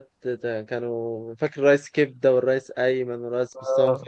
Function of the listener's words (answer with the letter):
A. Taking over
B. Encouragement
A